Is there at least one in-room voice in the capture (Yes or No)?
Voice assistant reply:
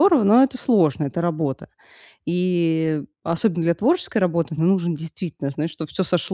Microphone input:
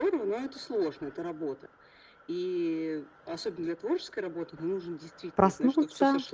Yes